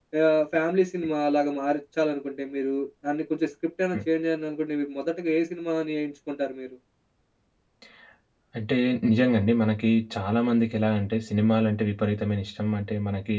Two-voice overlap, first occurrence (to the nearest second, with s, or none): none